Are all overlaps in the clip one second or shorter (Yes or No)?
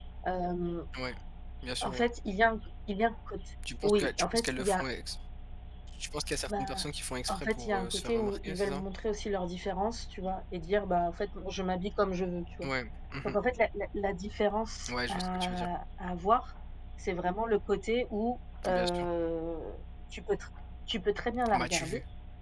No